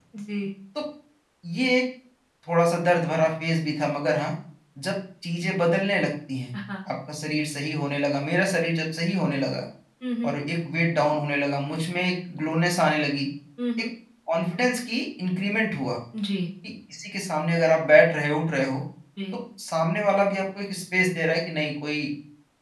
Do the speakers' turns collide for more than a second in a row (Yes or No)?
No